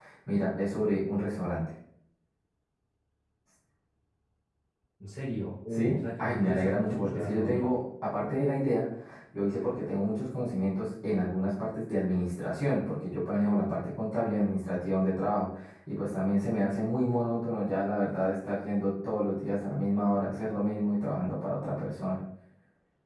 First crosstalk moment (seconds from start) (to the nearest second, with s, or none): 6 s